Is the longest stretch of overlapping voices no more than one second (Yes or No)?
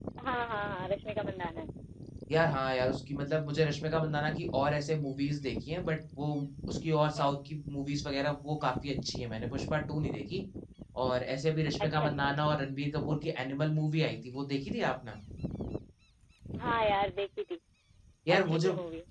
Yes